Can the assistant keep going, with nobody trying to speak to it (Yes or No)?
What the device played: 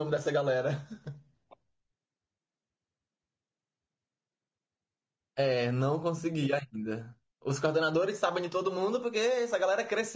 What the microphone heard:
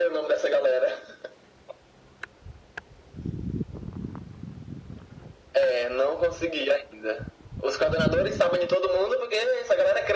Yes